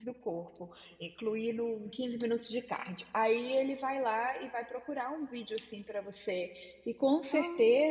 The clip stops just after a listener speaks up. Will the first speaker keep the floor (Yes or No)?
Yes